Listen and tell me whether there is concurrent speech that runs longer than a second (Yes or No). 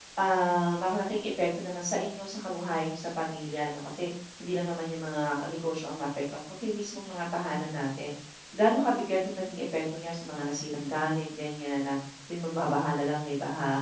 No